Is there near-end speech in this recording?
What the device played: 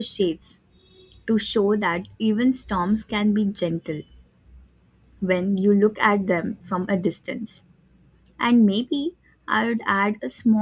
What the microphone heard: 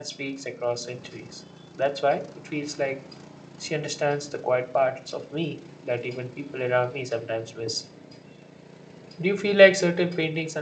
Yes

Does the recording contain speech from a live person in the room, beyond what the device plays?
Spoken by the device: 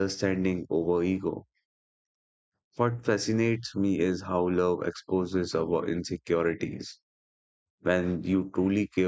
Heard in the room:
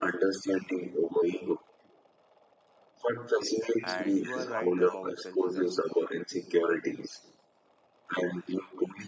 Yes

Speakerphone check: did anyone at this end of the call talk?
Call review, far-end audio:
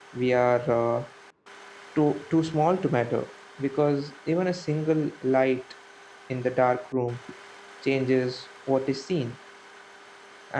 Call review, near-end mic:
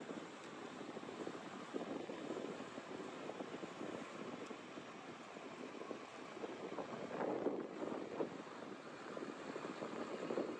No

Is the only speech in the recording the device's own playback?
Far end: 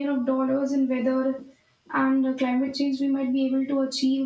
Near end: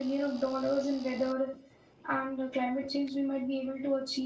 Yes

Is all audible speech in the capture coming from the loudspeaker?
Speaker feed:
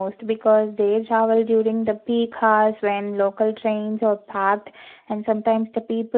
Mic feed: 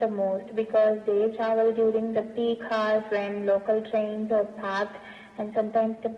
Yes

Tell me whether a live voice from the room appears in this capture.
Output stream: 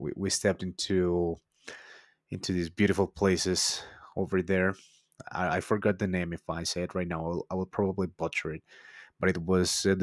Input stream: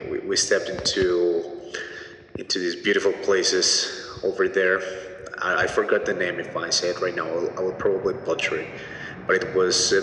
No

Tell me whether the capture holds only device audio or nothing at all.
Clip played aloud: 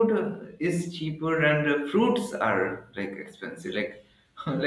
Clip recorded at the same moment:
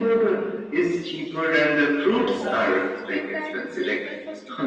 No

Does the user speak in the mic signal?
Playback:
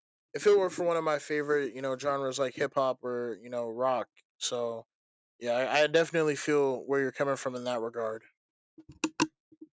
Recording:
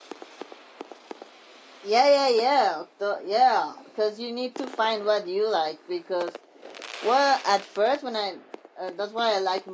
Yes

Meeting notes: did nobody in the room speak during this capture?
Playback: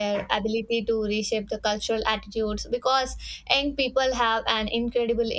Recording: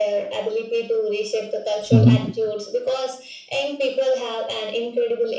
No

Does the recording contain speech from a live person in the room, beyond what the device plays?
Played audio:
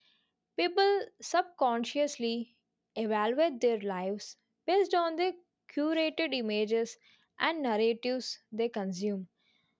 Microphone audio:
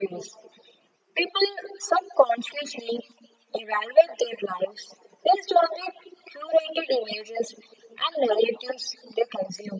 No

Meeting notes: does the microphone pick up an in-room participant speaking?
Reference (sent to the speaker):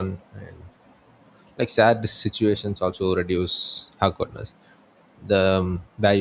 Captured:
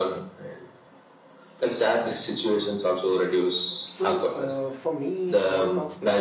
Yes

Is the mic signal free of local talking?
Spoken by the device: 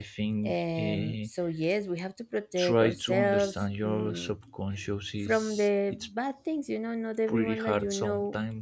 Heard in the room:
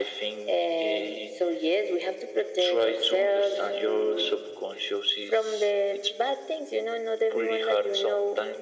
Yes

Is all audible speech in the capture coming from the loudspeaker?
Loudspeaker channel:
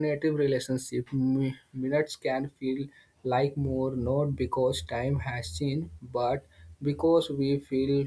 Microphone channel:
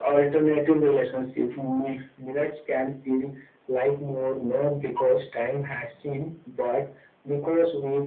Yes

